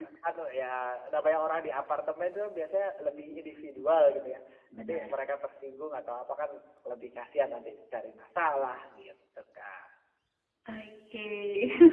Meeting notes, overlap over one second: none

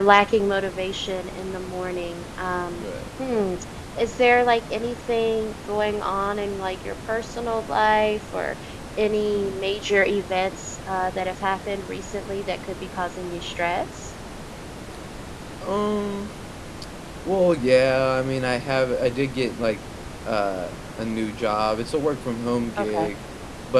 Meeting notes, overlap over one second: none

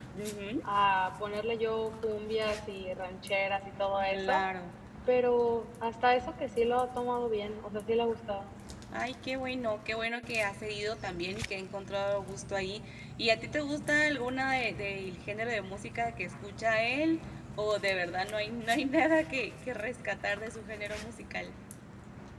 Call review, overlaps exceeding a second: none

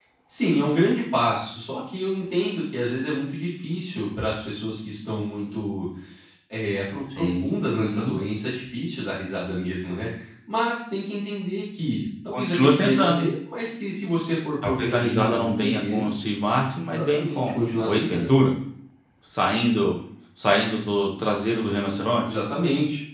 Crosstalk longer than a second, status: present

